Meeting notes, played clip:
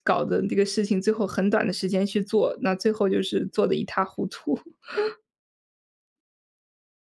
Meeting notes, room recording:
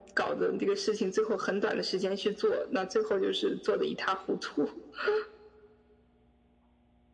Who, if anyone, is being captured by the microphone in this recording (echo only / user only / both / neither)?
echo only